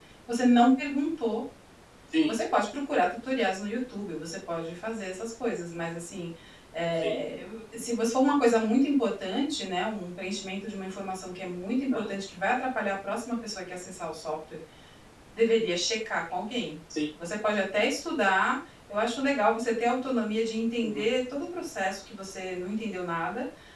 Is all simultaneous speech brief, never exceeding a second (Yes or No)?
Yes